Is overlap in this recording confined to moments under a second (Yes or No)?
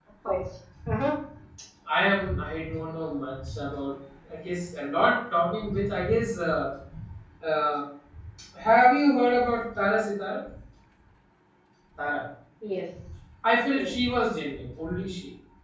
Yes